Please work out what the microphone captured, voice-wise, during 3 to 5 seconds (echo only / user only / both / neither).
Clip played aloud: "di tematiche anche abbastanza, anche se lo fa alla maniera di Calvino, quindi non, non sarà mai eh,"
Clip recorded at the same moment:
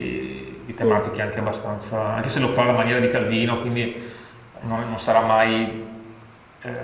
echo only